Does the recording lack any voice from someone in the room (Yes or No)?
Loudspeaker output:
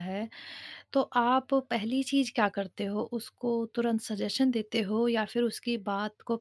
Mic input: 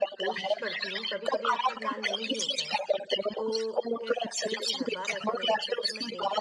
No